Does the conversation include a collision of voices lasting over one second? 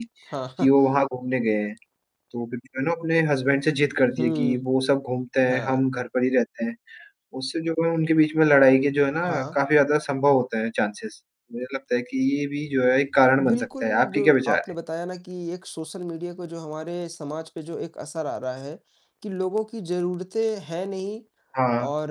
Yes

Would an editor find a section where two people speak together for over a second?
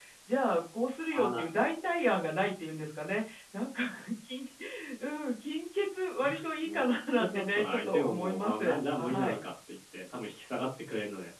Yes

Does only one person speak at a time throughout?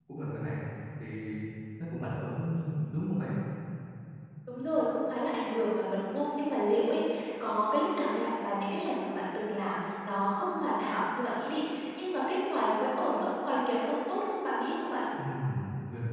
Yes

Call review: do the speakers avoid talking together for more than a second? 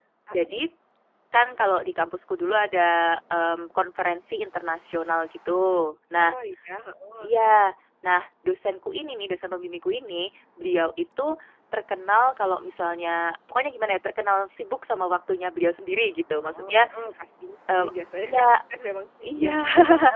Yes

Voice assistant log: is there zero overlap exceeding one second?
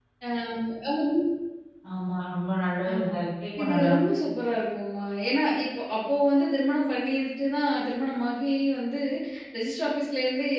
Yes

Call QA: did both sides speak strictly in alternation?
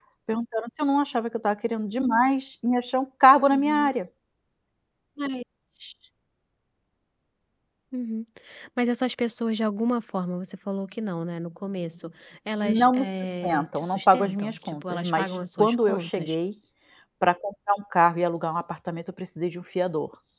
No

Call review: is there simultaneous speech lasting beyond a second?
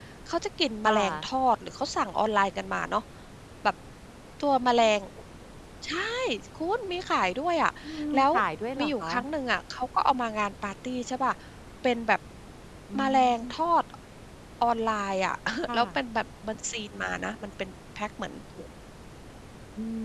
No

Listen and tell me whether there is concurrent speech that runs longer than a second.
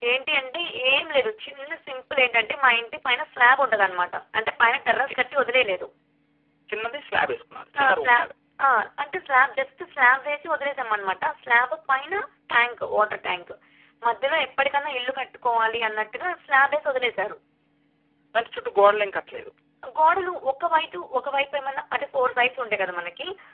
No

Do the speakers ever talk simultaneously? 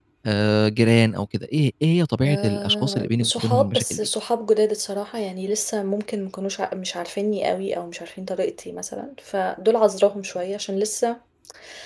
Yes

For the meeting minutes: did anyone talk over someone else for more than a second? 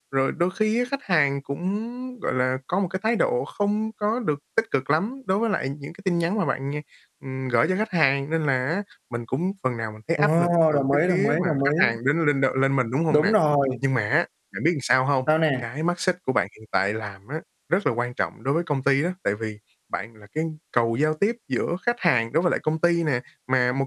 Yes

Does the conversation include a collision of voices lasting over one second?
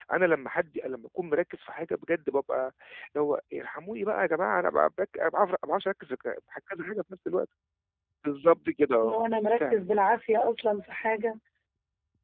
No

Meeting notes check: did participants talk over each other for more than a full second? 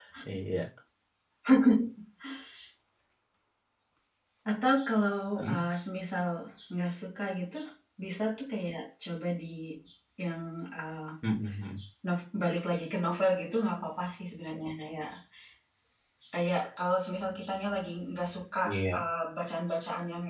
No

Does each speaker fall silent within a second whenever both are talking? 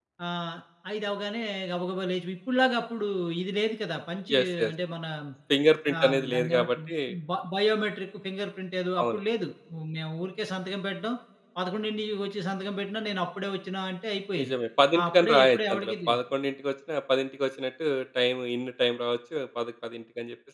No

